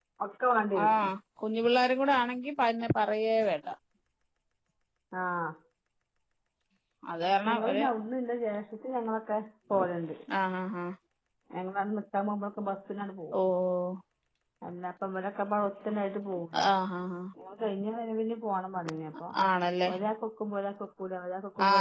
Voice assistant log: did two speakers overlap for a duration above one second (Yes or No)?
No